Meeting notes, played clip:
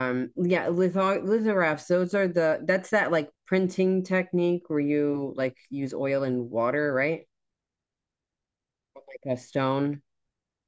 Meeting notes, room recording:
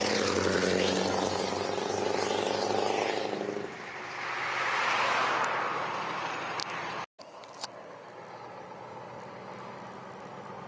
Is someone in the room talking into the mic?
No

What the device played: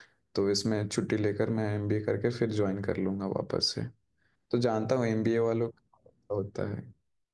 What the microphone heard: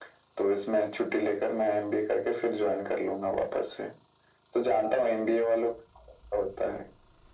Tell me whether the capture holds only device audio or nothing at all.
Yes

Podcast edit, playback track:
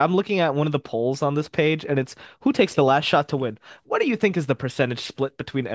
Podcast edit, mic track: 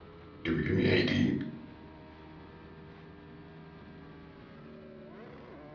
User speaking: Yes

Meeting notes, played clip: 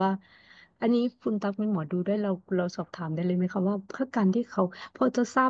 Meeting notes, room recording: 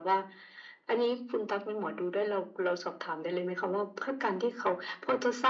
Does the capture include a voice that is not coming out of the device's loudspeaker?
No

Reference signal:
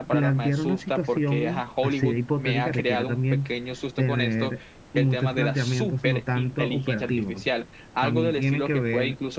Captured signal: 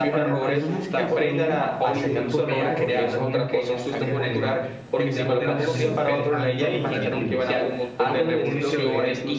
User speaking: Yes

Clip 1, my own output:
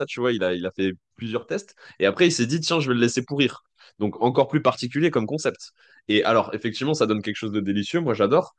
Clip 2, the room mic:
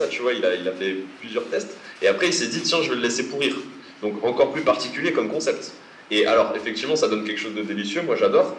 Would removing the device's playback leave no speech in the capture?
Yes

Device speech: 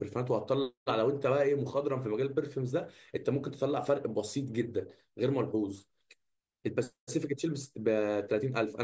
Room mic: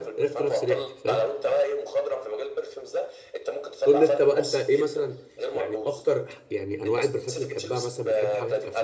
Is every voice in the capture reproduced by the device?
No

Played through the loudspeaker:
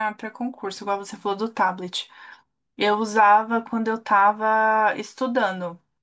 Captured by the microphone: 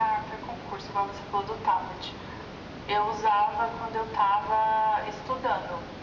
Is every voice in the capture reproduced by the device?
Yes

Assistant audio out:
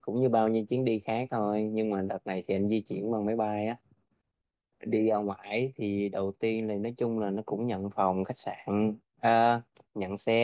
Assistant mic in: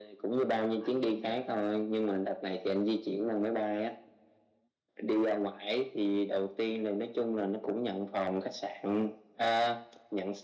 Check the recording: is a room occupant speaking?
Yes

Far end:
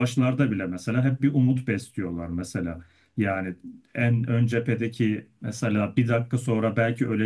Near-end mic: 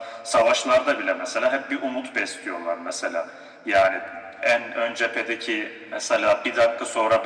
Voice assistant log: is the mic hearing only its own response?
Yes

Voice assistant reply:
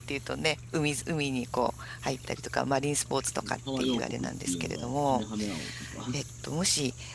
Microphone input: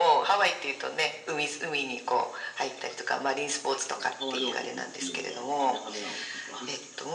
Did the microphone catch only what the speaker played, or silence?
Yes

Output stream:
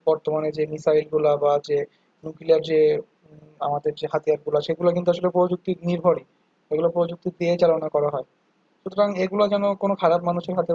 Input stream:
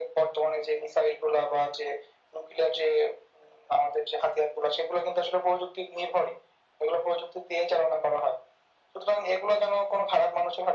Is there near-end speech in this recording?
No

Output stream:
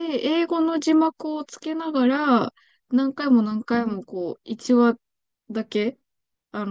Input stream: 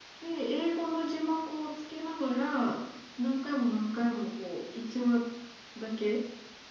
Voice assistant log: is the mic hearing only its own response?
Yes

